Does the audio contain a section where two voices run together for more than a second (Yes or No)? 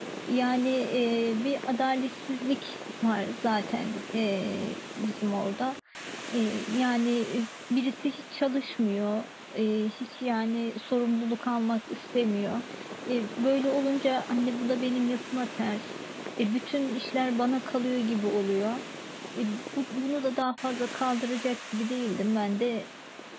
No